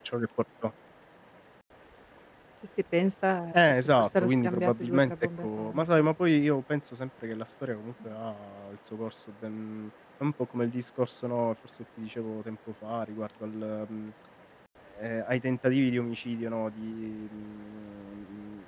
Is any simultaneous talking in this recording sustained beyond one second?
Yes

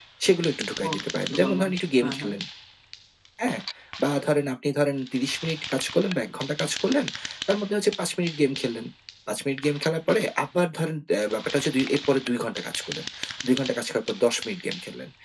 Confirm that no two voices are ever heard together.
No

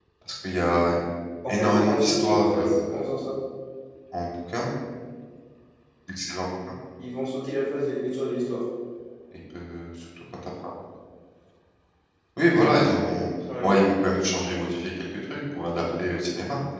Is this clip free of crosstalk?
No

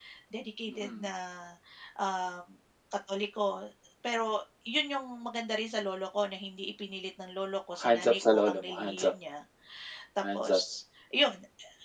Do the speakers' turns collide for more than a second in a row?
Yes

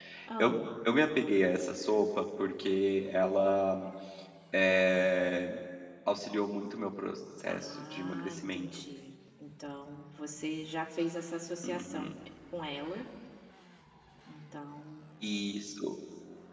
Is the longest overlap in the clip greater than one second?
Yes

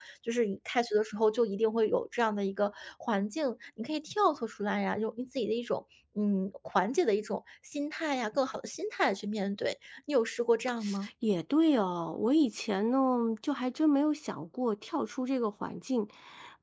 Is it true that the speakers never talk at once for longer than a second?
Yes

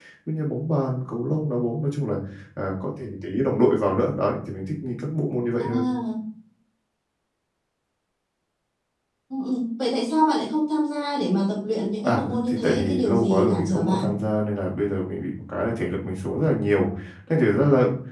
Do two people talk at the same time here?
Yes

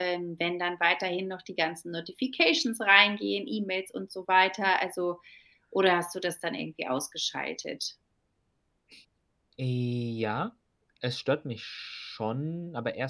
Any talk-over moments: No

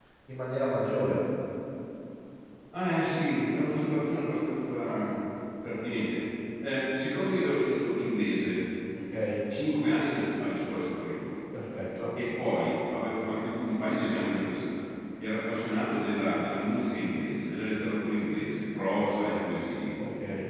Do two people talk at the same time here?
No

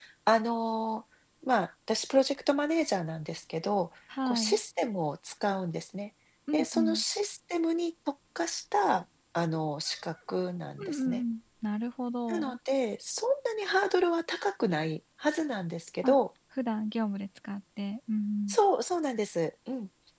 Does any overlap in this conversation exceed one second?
No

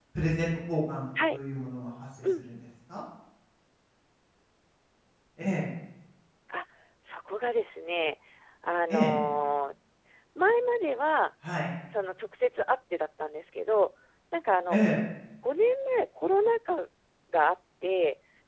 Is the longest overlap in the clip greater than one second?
No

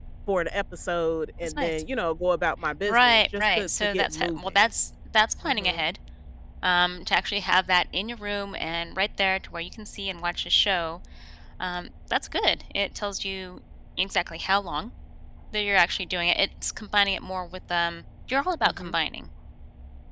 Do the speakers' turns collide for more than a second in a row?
Yes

